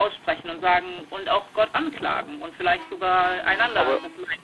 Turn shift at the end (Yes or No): Yes